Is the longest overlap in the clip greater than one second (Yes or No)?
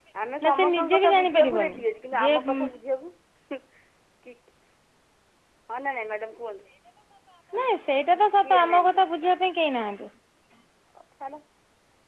Yes